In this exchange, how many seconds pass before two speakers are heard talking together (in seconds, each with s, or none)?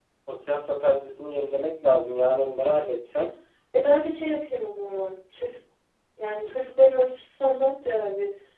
none